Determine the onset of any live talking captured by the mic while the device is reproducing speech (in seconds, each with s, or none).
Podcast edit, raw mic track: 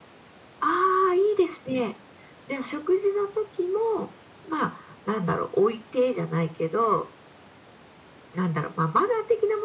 none